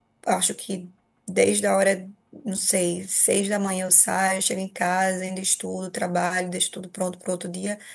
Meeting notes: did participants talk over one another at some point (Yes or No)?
No